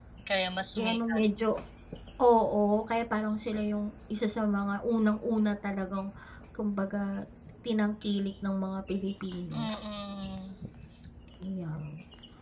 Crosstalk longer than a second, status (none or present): none